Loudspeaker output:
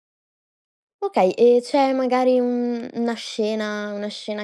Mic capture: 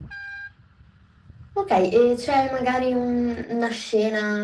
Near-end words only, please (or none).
none